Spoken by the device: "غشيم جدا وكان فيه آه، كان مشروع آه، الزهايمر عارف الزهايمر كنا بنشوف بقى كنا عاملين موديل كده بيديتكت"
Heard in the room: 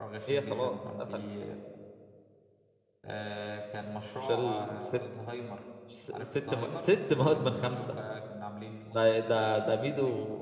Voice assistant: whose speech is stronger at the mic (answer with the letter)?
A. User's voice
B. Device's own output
A